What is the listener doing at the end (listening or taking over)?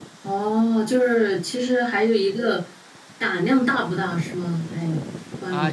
taking over